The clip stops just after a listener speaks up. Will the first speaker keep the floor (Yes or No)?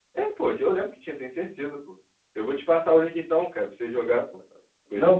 No